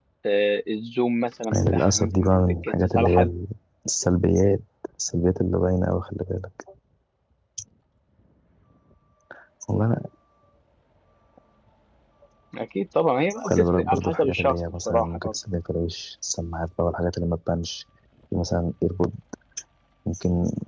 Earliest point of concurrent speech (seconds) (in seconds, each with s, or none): 1.5 s